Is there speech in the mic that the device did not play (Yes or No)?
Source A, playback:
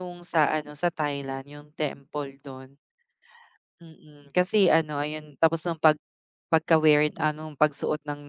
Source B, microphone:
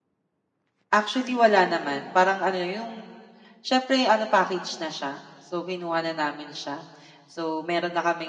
Yes